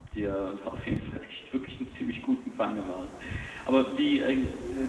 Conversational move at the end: listening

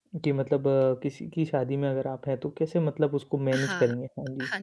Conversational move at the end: taking over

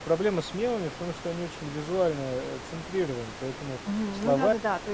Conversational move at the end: taking over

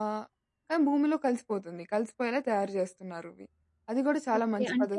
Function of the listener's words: taking over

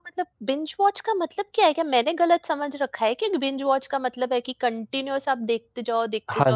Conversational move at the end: taking over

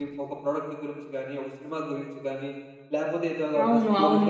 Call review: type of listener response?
listening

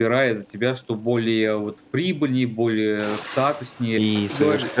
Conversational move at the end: taking over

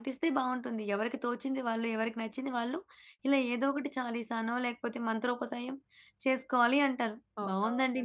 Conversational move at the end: listening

